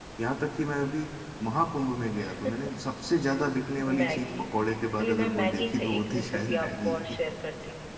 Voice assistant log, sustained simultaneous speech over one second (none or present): present